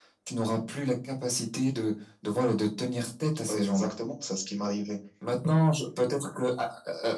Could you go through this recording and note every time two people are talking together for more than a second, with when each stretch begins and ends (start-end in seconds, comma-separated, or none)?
none